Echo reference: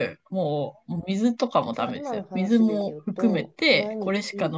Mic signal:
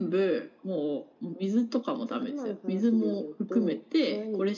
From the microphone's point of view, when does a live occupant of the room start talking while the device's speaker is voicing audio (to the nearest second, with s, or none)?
none